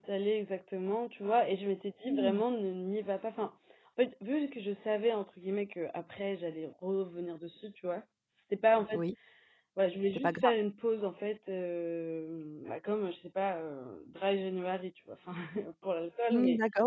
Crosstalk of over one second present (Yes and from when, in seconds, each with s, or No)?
No